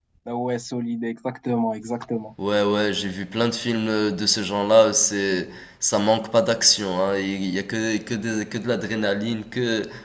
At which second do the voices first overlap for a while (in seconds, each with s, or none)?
none